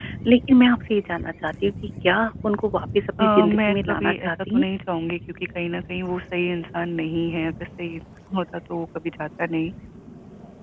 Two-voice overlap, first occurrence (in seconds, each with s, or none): 3.2 s